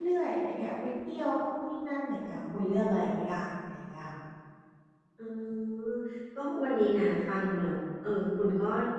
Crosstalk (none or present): none